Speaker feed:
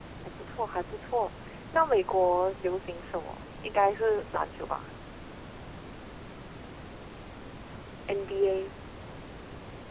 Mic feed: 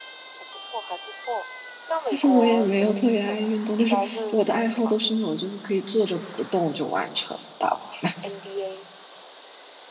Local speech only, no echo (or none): 但是我也没有特别爱运动，就是我的爱好都是那种就是可以坐着不动就完成的大部分。